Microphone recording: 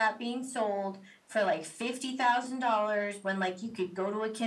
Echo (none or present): present